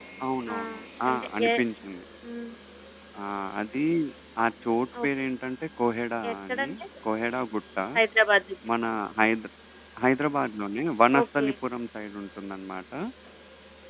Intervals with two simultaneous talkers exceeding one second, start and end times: none

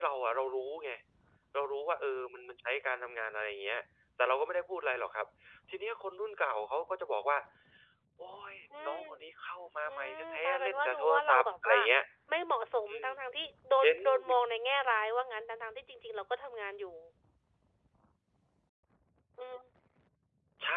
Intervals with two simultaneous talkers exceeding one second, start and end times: 9.8-11.8

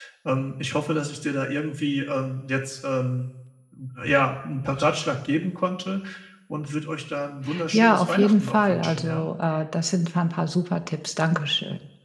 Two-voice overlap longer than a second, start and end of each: 7.7-9.2

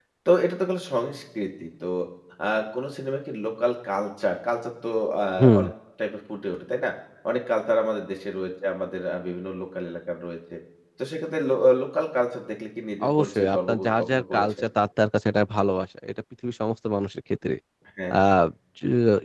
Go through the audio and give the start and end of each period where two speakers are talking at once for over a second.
13.2-14.4

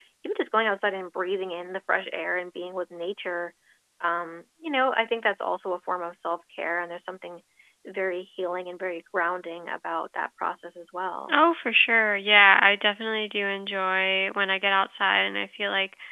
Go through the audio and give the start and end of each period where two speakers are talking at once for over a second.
none

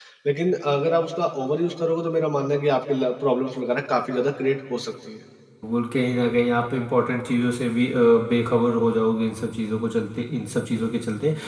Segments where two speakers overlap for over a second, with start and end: none

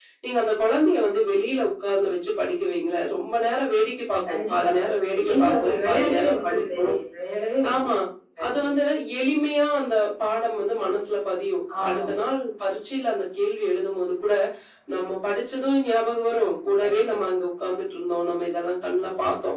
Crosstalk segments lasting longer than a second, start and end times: 4.3-6.9

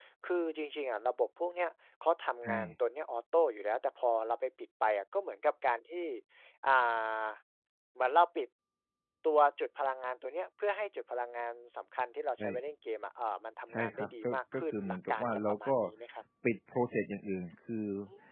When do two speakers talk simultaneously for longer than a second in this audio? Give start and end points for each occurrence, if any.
13.7-15.7

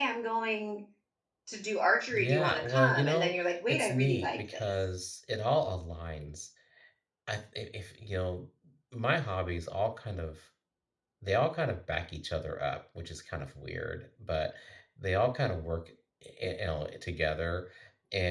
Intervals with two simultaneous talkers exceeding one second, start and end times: 2.1-4.7

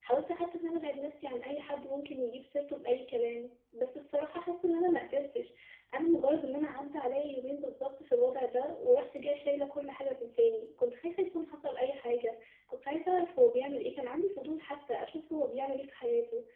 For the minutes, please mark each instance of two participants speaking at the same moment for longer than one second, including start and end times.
none

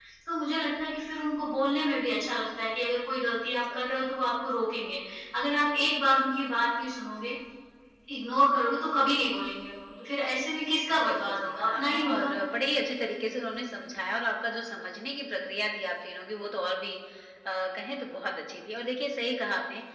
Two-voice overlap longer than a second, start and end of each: 11.0-12.3

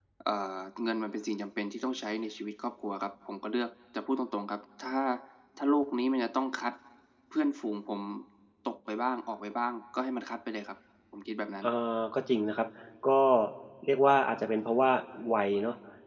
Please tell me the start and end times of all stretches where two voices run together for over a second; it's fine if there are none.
none

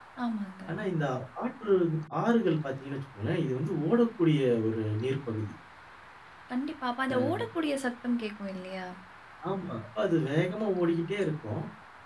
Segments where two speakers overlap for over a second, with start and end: none

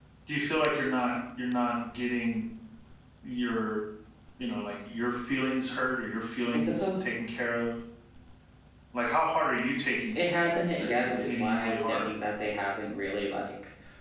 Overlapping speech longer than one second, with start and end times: 10.2-12.1

